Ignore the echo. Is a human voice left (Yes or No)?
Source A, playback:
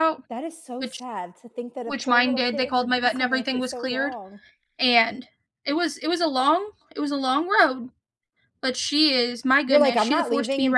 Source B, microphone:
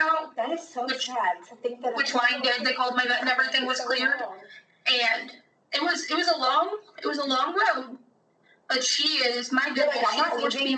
No